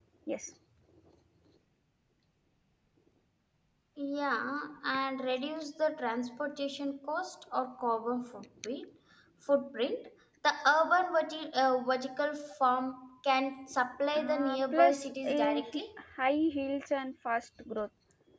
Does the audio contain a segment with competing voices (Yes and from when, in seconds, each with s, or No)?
Yes, from 14.2 s